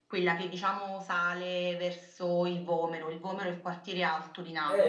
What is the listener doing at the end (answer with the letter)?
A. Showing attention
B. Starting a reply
B